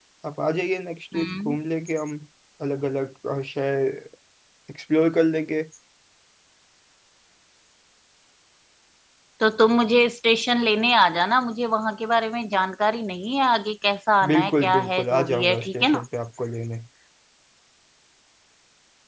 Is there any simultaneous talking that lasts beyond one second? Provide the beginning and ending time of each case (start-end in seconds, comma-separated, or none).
14.3-16.0